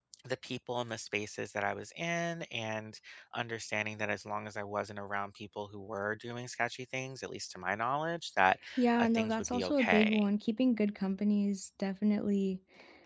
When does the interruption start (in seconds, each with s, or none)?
9.0 s